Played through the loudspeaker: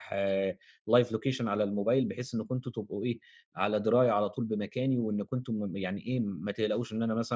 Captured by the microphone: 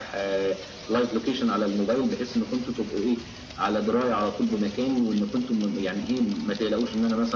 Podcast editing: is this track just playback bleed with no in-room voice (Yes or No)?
Yes